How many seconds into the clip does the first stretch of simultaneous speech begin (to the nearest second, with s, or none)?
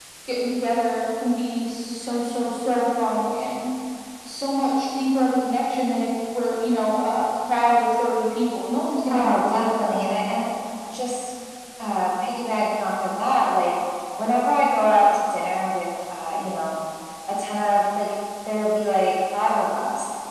9 s